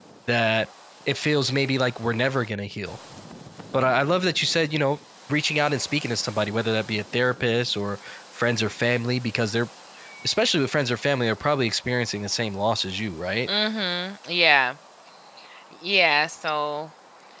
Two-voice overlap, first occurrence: none

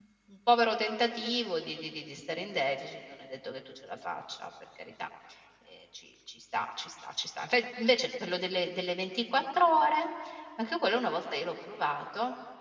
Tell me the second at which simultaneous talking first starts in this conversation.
none

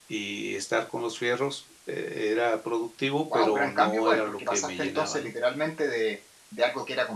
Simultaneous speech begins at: 3.3 s

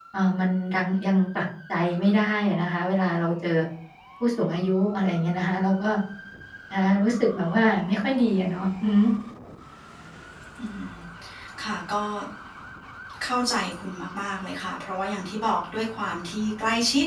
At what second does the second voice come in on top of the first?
none

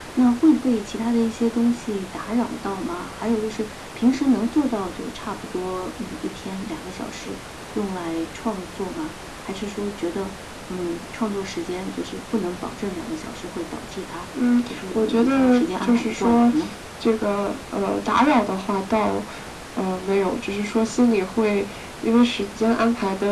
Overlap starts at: 14.7 s

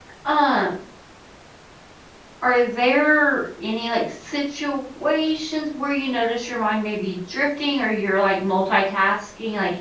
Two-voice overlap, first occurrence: none

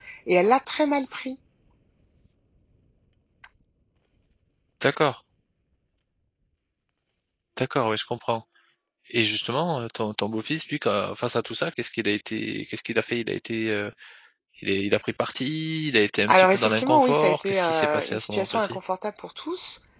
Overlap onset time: 16.3 s

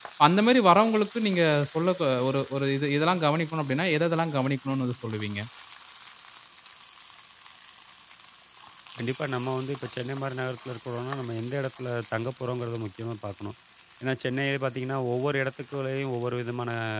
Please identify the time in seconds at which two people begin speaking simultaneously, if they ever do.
none

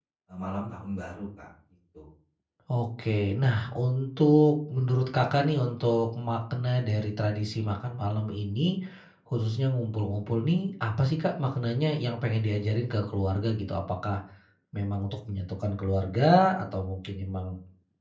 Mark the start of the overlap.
none

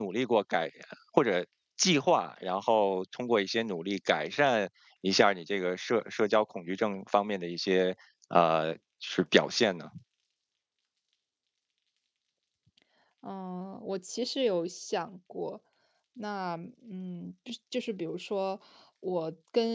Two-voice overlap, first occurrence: none

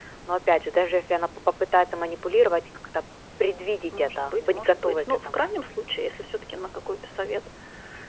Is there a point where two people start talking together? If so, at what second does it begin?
3.9 s

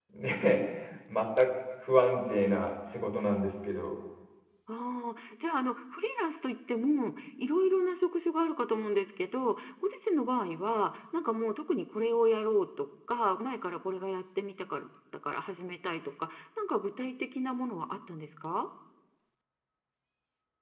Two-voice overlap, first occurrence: none

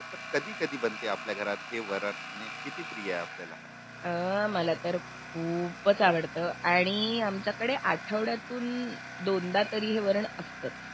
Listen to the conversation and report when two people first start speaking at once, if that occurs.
none

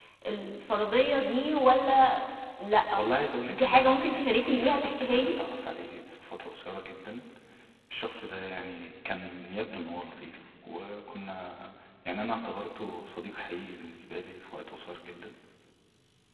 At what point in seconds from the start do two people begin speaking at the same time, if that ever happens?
3.4 s

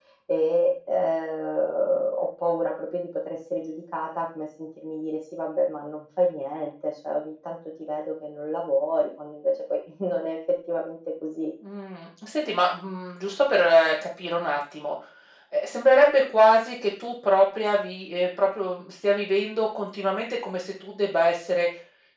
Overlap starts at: none

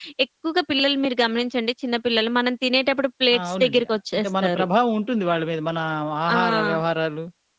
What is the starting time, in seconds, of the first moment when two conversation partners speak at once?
3.4 s

